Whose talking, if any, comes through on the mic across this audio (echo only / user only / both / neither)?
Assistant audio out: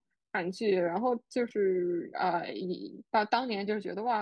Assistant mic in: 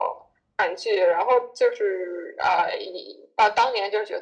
echo only